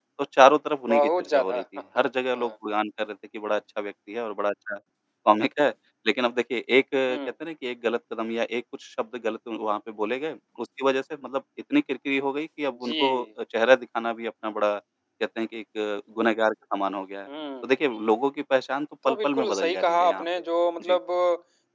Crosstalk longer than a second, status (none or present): present